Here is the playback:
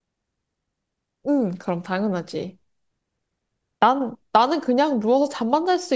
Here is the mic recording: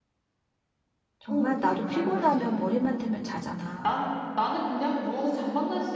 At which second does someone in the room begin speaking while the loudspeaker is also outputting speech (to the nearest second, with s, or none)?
1 s